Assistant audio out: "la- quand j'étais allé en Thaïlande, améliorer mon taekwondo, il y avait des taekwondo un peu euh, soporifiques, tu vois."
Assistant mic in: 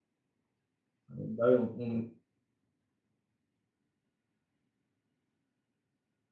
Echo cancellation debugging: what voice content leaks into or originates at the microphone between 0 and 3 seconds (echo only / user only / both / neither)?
user only